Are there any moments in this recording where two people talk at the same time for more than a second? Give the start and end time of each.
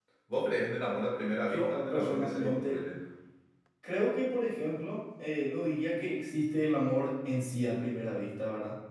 1.5-2.8

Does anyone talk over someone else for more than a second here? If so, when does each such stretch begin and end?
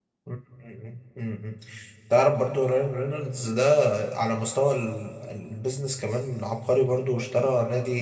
none

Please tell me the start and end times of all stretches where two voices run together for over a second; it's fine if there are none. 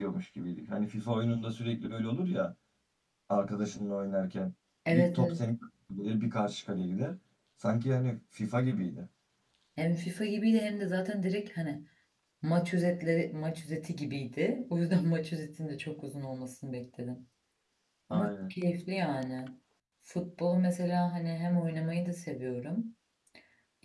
none

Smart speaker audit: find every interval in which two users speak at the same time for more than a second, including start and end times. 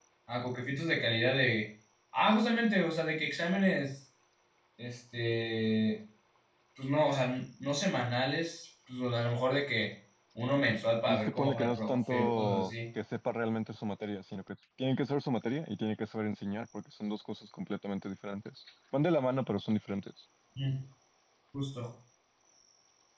11.1-12.7

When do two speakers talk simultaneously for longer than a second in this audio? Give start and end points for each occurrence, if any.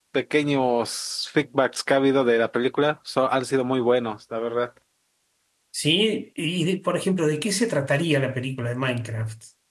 none

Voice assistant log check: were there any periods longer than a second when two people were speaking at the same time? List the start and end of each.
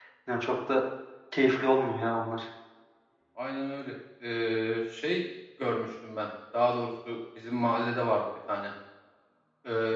none

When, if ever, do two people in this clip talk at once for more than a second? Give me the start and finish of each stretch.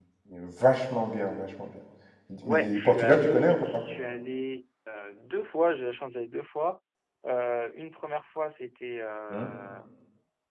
2.5-3.8

